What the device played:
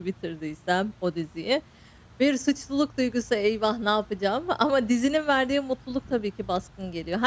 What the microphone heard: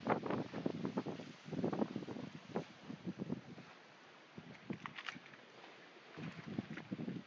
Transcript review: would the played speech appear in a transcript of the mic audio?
No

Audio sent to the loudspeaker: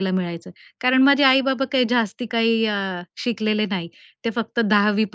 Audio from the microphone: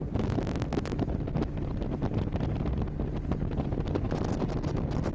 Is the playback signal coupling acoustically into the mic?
No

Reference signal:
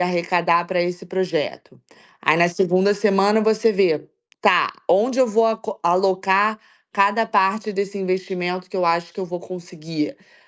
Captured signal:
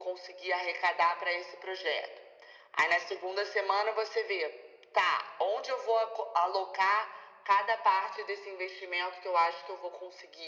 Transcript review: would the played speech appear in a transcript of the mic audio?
Yes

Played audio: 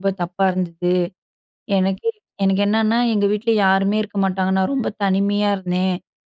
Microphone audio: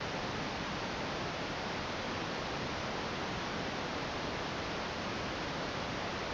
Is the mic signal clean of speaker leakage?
Yes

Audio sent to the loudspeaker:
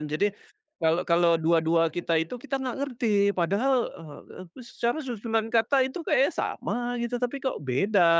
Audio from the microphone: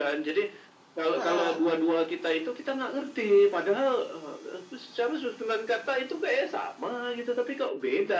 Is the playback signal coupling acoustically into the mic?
Yes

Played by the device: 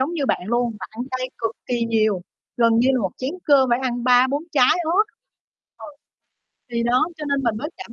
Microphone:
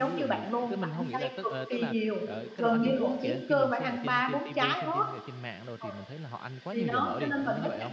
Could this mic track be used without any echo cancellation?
No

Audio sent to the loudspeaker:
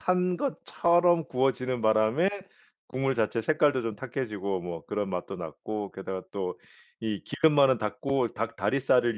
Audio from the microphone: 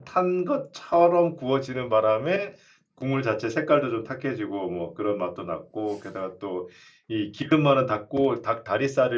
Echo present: Yes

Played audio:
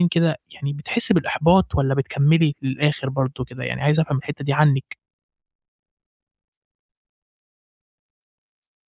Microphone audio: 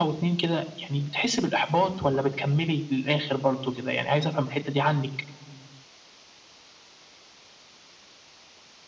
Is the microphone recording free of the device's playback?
No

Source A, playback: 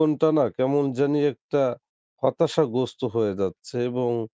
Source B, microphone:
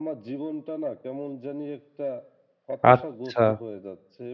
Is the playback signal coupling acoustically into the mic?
Yes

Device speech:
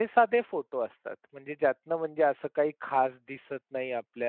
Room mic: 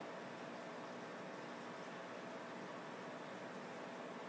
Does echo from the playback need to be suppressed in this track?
No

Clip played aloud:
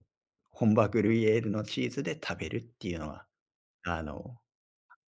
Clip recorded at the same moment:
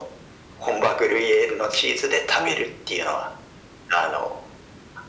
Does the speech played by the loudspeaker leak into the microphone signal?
Yes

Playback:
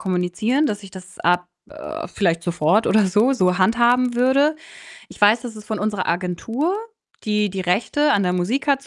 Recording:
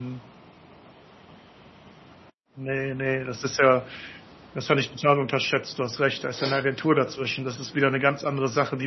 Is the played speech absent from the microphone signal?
Yes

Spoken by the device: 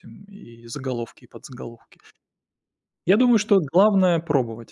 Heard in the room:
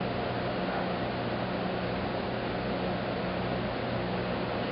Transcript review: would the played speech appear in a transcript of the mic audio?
No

